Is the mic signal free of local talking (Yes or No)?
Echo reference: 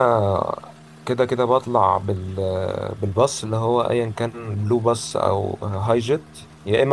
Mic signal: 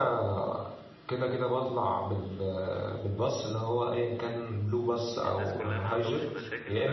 No